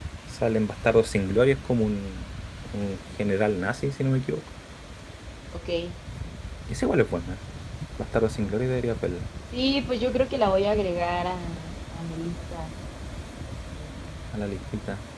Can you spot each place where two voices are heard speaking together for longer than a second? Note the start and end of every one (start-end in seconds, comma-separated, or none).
none